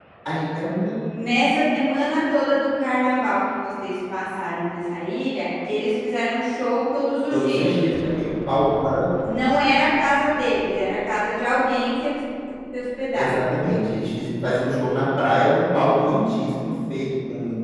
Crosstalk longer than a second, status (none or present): none